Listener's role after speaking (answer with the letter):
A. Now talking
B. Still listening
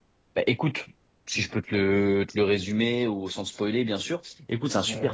B